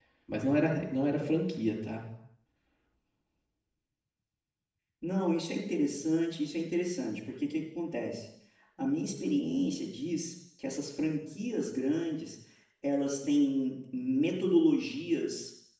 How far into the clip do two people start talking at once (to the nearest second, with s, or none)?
none